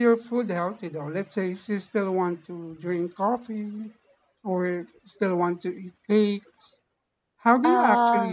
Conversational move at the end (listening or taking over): listening